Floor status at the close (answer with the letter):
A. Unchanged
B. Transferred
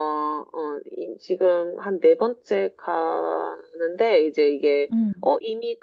A